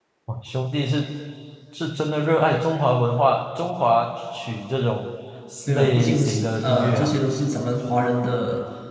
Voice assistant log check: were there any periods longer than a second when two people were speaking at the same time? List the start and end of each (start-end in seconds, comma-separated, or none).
5.7-7.1